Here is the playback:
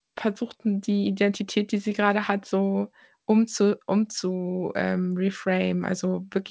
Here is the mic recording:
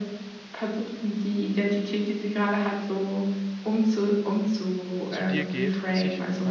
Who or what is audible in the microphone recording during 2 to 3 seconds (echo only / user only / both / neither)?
echo only